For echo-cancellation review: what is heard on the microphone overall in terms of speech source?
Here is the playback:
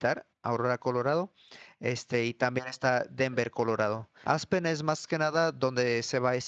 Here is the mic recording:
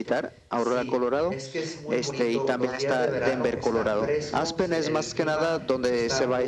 both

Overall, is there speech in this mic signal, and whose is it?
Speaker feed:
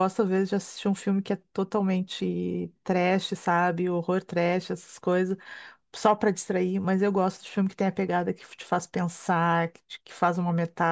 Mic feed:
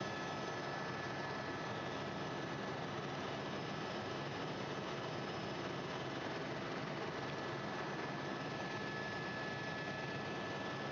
neither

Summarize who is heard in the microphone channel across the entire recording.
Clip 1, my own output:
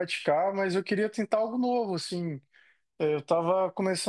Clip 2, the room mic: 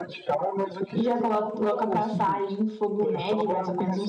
both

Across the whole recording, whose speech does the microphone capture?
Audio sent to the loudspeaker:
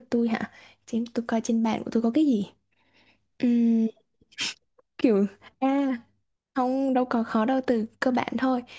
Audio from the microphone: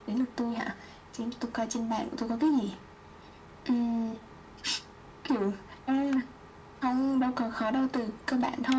echo only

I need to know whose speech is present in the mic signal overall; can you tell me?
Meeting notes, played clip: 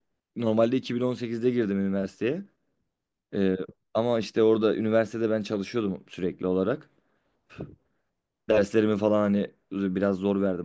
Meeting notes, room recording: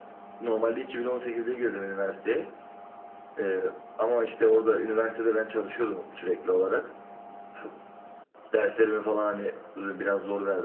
echo only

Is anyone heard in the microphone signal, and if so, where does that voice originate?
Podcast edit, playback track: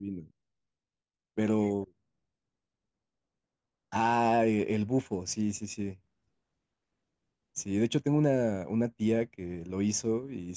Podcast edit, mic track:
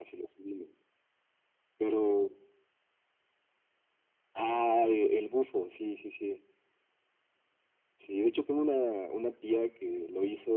echo only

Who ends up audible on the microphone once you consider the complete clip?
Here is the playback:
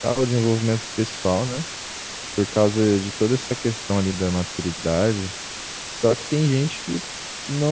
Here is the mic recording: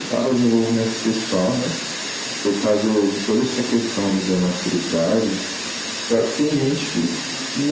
echo only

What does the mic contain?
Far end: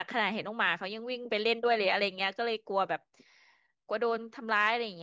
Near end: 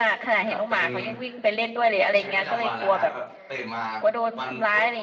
both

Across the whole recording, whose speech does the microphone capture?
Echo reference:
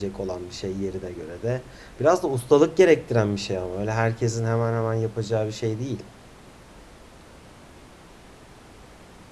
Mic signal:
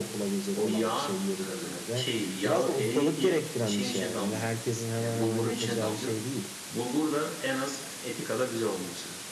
both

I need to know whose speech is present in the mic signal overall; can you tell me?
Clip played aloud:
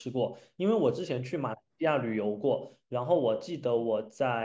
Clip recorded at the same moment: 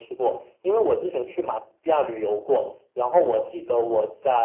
echo only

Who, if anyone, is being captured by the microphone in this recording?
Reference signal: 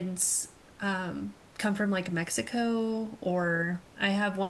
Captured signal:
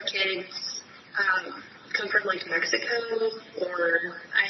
echo only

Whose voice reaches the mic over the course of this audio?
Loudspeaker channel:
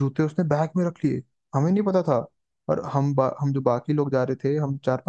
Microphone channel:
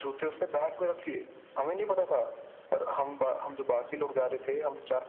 echo only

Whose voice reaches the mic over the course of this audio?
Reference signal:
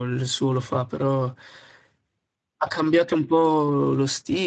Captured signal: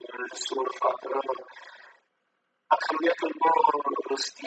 echo only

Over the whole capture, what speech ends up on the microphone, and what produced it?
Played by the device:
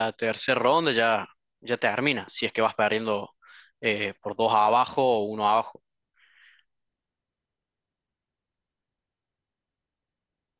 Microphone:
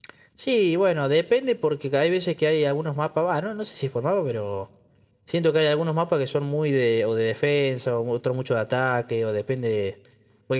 user only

